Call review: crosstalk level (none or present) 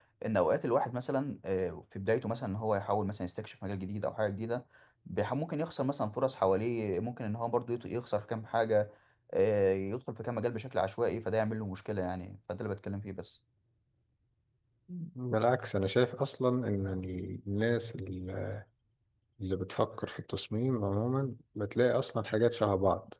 none